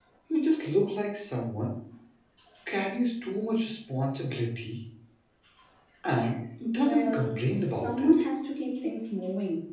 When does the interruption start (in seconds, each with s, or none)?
6.8 s